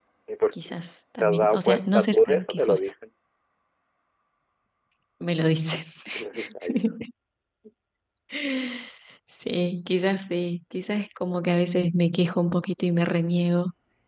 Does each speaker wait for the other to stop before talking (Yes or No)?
No